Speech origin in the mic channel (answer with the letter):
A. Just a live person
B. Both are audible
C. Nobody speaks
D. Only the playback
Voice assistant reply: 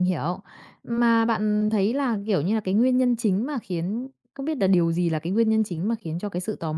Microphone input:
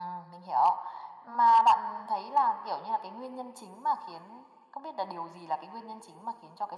D